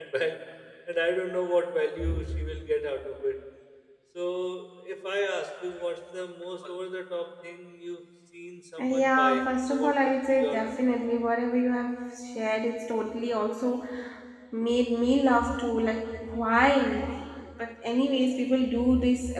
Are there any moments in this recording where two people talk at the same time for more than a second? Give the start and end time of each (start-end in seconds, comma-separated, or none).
8.8-10.7